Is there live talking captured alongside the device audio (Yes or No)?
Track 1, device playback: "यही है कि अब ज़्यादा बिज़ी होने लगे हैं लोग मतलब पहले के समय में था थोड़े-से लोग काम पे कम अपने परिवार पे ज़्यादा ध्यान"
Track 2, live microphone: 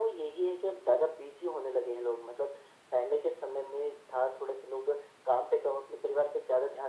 No